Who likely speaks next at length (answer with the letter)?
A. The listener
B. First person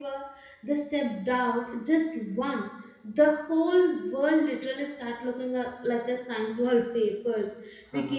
B